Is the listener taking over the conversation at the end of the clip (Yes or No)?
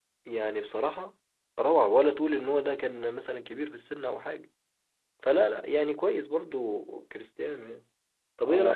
Yes